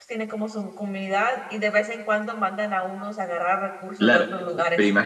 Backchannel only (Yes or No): No